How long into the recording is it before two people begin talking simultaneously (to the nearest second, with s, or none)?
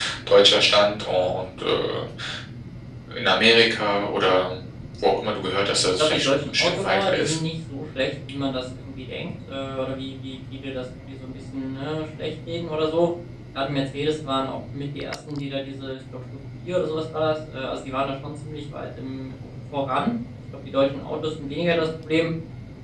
6 s